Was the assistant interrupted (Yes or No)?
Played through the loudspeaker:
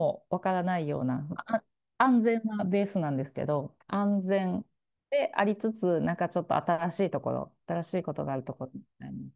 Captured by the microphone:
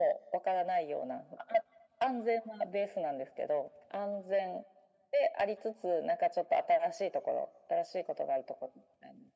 No